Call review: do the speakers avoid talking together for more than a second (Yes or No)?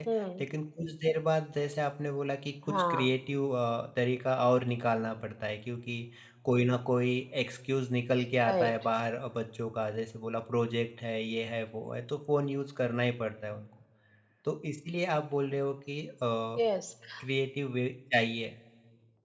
Yes